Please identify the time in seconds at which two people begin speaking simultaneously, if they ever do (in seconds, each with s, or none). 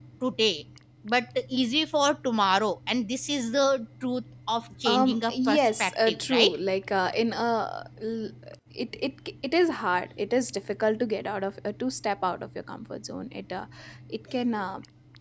4.8 s